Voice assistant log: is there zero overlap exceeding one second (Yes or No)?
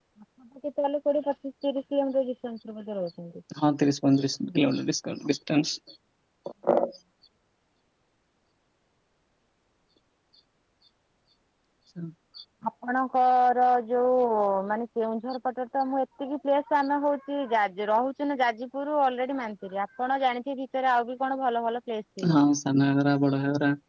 Yes